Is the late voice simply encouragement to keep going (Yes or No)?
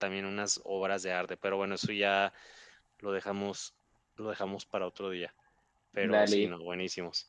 Yes